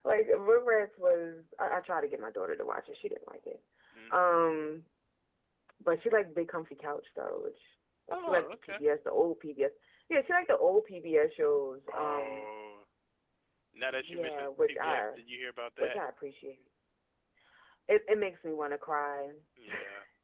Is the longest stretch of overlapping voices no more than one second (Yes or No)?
No